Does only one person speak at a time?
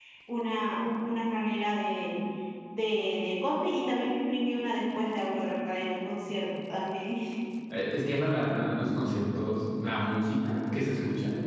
Yes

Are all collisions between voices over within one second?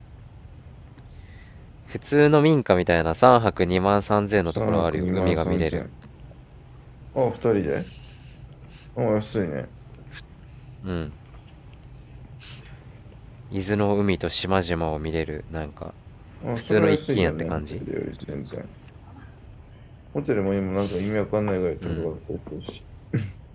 No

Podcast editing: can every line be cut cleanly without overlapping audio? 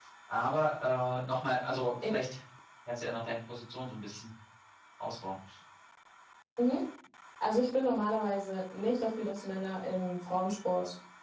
Yes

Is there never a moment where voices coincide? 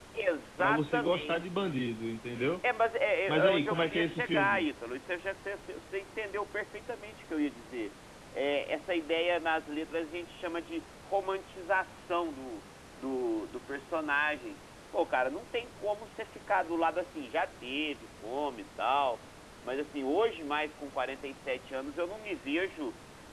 No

